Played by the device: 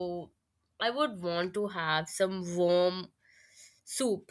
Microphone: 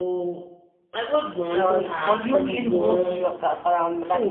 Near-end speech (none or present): present